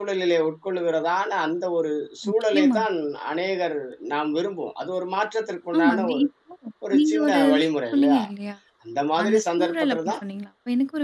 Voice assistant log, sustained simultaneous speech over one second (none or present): present